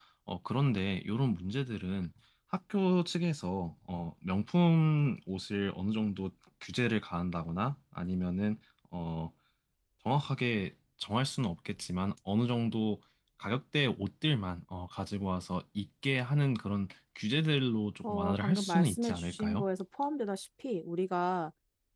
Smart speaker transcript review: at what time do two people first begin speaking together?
18.0 s

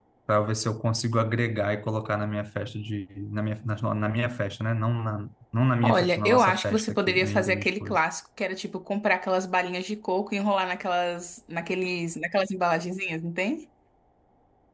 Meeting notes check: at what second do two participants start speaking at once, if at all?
5.8 s

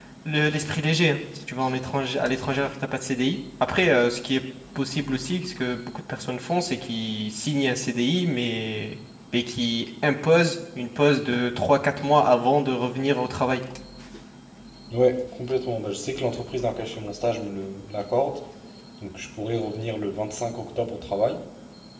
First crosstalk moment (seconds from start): none

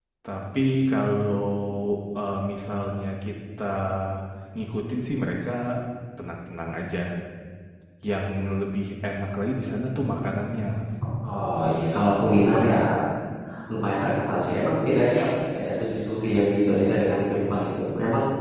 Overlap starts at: none

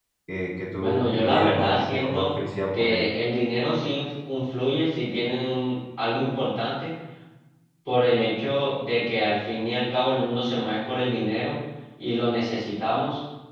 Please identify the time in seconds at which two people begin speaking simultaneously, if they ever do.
0.8 s

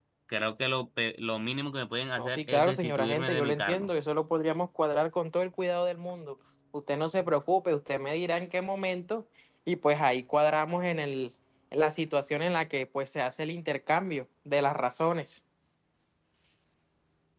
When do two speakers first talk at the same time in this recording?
2.2 s

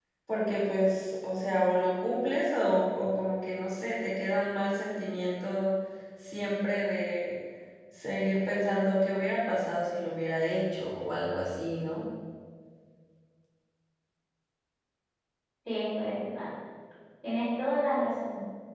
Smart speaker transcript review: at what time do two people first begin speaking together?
none

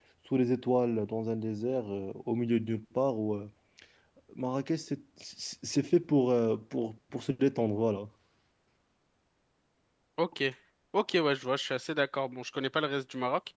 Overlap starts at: none

